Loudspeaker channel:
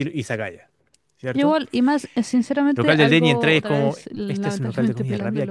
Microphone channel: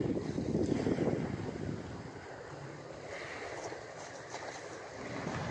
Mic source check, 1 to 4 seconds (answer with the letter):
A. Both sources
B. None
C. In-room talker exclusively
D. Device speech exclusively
B